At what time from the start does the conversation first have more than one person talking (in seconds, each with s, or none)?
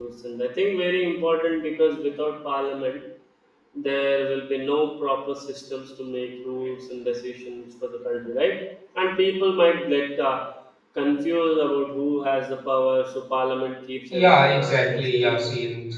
14.1 s